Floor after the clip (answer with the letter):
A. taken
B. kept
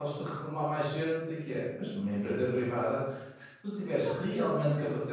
B